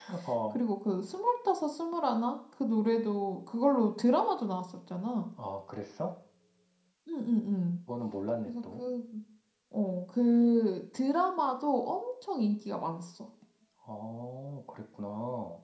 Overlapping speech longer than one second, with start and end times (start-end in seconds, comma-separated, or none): none